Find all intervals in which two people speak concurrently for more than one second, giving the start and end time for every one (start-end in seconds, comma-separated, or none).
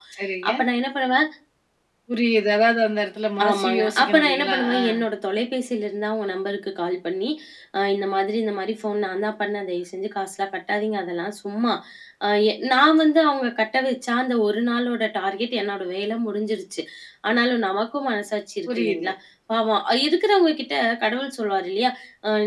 3.4-4.8